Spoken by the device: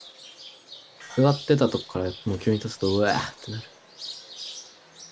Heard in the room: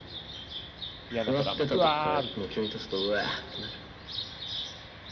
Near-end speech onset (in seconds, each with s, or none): 1.1 s